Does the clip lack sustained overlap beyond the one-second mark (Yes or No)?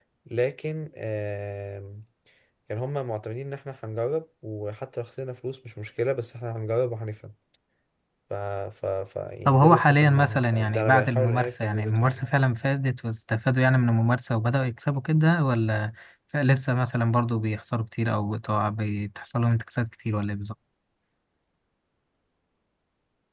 No